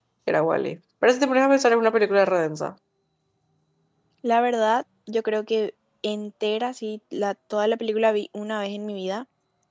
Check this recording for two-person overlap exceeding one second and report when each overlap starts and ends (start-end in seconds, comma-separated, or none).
none